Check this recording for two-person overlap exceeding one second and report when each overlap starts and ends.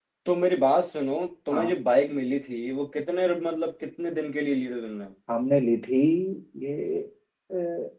none

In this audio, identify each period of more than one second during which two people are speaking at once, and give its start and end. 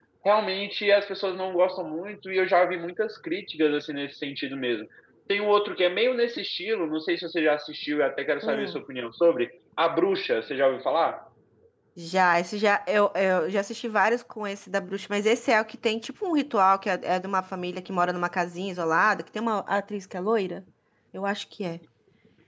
none

